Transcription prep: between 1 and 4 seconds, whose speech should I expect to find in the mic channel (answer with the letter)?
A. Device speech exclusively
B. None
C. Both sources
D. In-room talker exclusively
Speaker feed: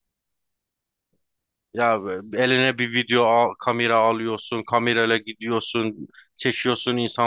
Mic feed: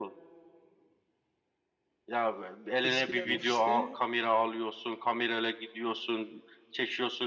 C